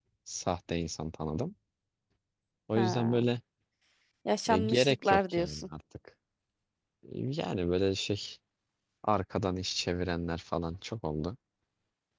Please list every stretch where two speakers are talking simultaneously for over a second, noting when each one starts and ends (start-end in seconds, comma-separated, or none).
4.5-5.7